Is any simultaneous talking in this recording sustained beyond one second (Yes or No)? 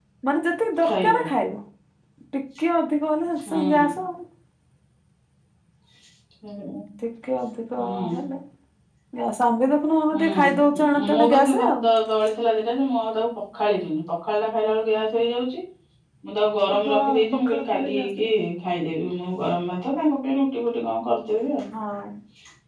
Yes